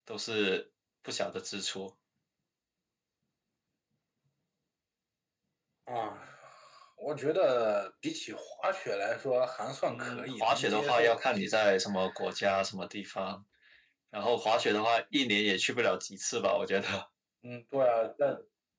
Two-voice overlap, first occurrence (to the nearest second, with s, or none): 10 s